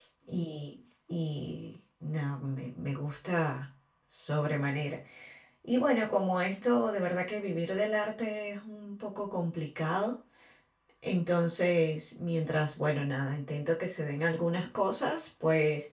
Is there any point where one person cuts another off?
No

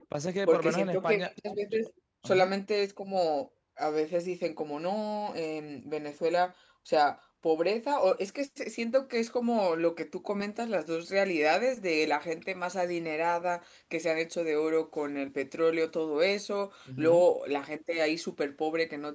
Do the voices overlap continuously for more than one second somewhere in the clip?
Yes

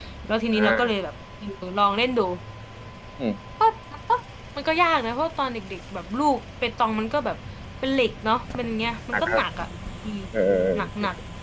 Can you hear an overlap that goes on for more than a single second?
No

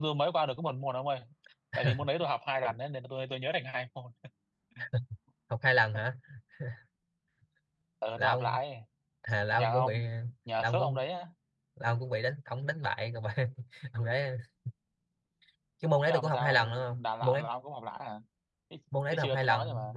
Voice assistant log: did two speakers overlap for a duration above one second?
Yes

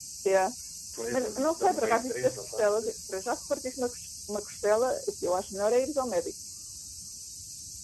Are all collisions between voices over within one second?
No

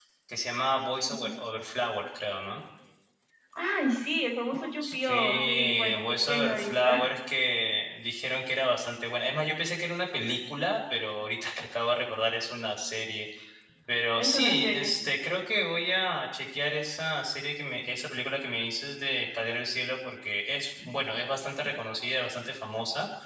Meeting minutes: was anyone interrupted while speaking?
Yes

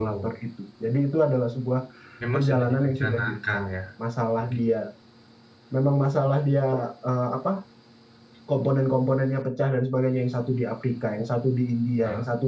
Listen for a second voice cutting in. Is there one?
Yes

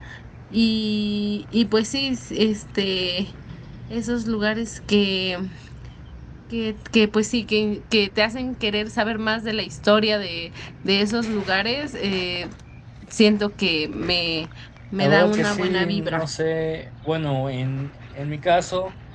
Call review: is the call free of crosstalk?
No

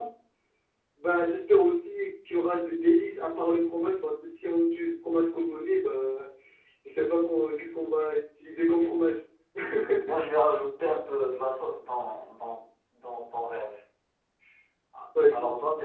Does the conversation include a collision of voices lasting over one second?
No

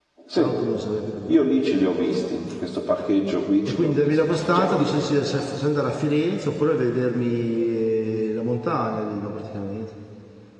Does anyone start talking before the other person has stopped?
Yes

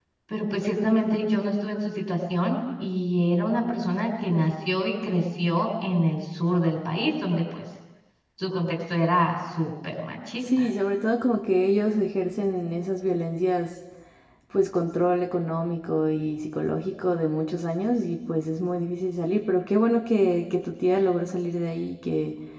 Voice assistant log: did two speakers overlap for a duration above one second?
No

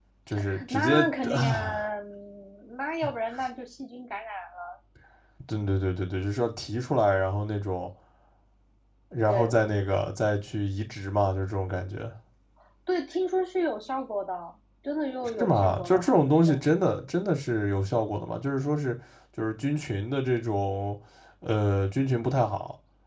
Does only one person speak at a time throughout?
No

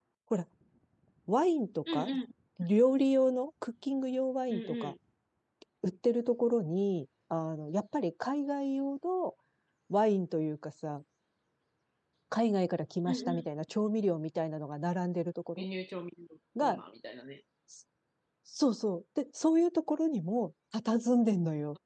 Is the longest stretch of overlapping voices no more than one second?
Yes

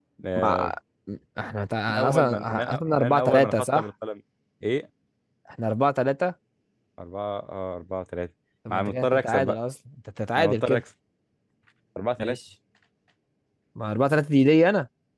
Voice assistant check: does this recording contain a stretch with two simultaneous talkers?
Yes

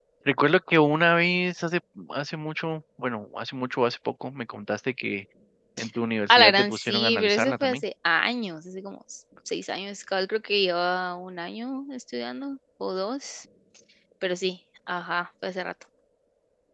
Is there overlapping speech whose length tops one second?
Yes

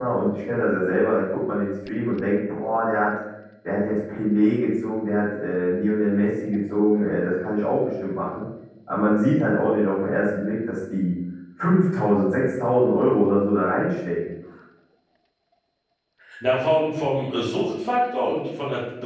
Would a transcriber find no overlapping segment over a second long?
Yes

